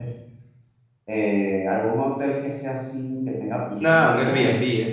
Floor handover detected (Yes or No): Yes